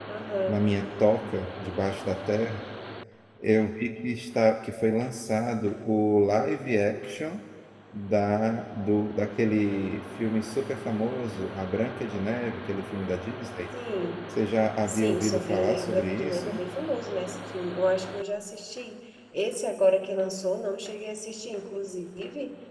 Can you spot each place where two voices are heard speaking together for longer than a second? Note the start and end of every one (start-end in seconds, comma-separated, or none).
14.9-16.6